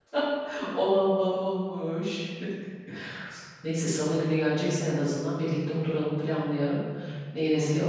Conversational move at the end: taking over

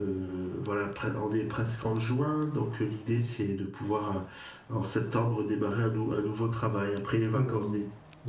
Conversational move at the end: taking over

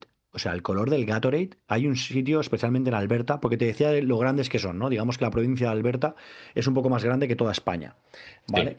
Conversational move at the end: listening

